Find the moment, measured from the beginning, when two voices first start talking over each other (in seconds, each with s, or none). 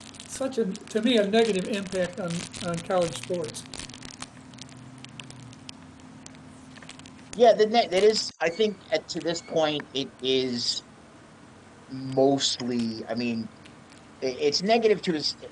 none